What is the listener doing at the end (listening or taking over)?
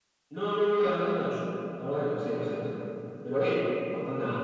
taking over